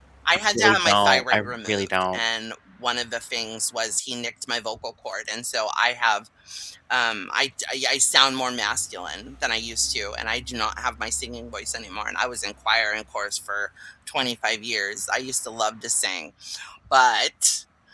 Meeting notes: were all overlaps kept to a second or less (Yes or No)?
No